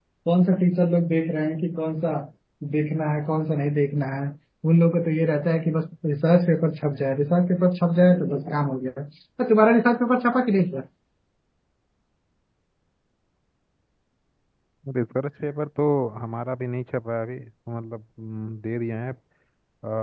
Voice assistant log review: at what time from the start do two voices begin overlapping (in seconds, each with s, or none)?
none